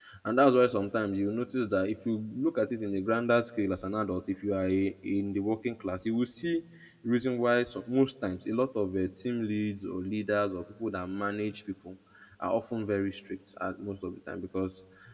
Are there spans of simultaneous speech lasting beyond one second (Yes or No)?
No